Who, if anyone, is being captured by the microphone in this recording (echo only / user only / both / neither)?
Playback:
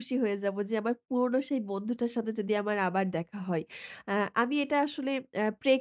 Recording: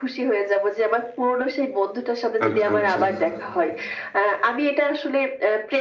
both